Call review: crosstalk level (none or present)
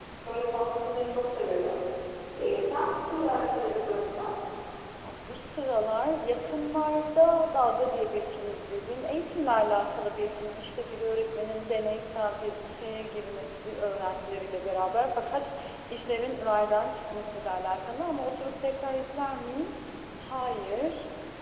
none